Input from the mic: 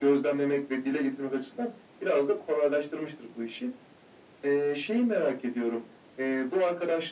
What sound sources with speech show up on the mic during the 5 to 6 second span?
echo only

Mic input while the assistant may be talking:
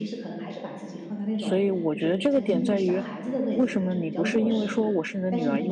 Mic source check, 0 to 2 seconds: both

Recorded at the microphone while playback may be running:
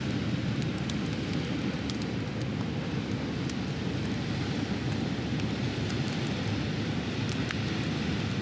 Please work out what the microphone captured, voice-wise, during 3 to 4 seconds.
neither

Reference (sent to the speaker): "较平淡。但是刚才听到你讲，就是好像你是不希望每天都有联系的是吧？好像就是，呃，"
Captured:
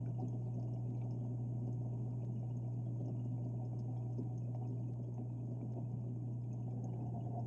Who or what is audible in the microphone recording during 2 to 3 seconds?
neither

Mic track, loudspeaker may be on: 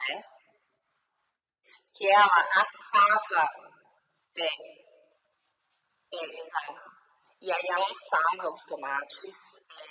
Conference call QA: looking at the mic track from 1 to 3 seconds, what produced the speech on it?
echo only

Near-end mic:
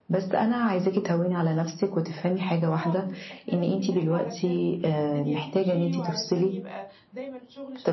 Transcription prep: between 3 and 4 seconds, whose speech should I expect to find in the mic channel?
both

